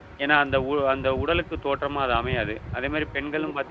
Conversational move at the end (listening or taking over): listening